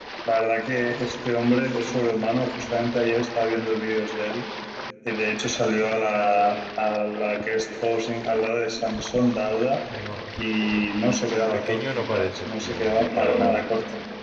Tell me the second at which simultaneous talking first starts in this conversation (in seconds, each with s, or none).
11.5 s